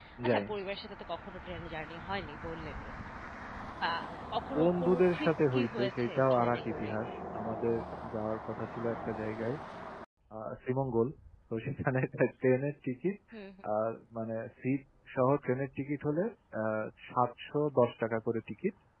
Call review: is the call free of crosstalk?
No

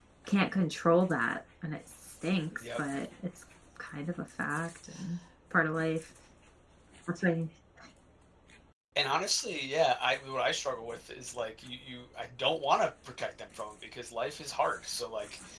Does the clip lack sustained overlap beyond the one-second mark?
Yes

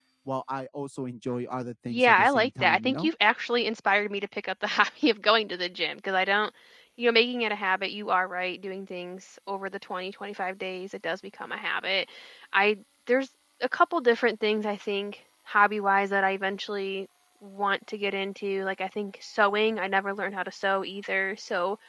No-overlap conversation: No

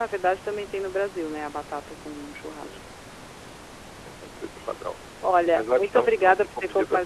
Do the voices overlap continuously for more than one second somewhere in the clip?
Yes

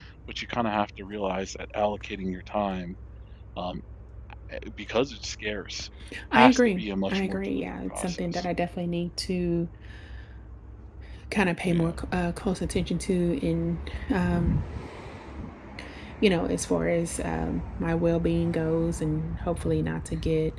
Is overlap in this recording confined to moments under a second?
No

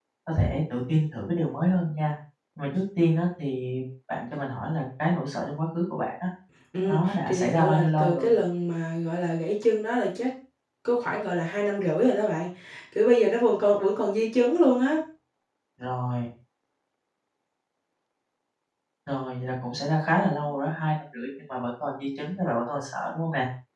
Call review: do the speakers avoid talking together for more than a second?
No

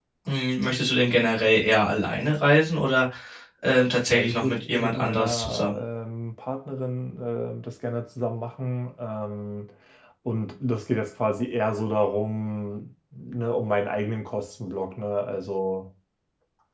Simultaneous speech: Yes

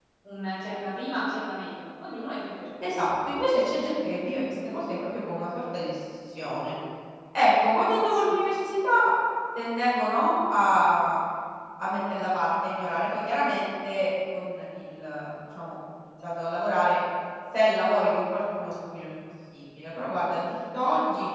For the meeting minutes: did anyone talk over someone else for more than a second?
No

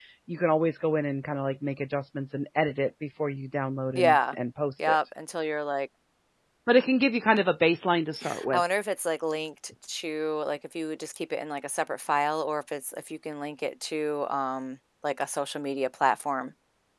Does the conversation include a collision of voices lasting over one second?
No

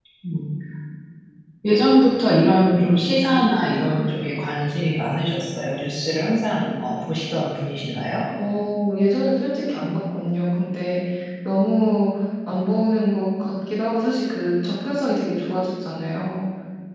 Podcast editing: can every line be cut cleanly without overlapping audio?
Yes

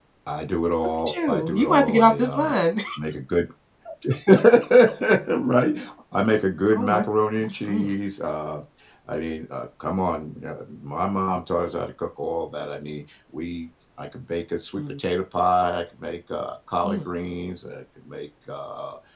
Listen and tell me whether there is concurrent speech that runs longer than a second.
Yes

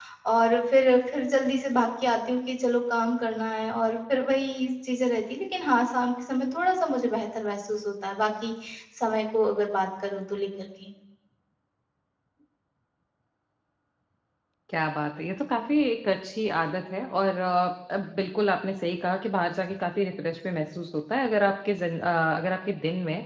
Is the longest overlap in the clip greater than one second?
No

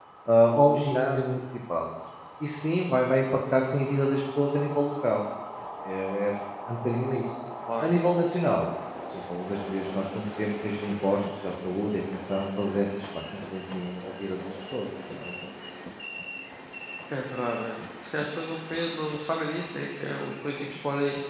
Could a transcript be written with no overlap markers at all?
Yes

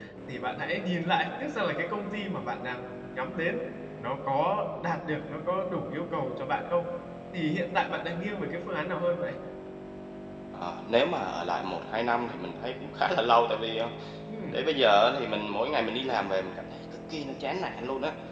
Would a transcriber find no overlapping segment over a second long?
Yes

